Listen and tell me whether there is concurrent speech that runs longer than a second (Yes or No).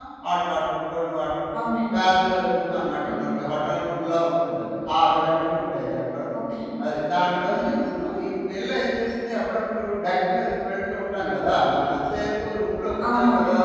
No